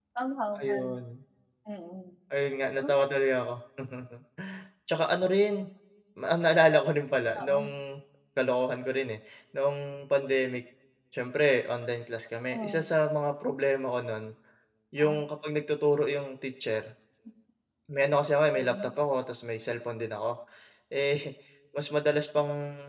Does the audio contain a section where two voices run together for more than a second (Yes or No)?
No